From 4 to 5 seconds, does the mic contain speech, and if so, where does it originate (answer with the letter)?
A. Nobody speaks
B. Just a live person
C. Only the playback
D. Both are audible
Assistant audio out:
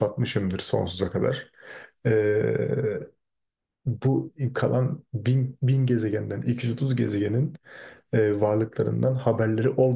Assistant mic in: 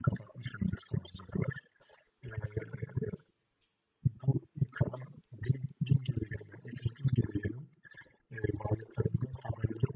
C